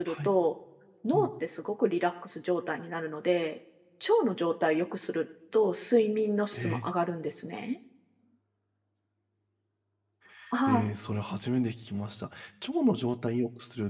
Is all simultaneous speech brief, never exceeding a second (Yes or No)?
Yes